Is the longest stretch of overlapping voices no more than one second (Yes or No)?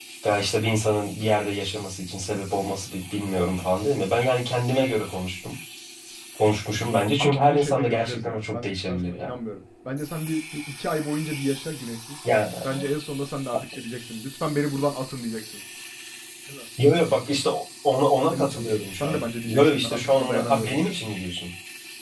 No